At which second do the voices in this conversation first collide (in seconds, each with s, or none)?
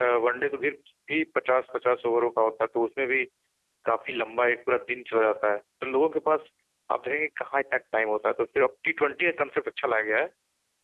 none